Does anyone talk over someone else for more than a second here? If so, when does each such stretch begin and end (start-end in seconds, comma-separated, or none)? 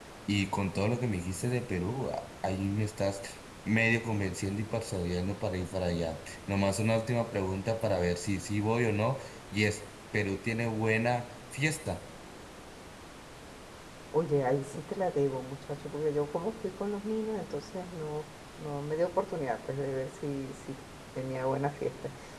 none